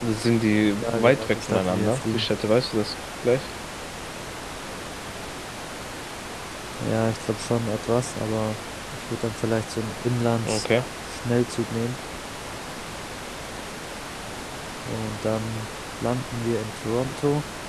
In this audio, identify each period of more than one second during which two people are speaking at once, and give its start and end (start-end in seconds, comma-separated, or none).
0.8-2.3